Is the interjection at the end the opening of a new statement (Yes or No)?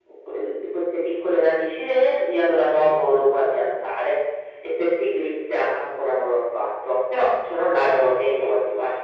Yes